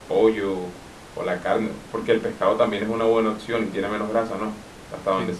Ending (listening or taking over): taking over